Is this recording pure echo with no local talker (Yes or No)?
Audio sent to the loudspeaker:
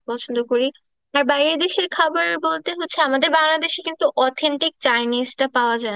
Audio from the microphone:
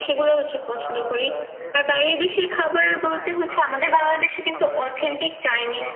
No